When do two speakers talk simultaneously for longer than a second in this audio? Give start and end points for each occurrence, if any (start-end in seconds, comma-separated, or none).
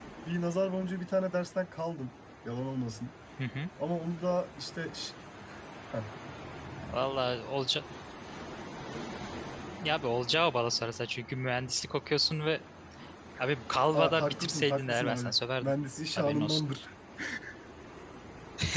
13.9-15.7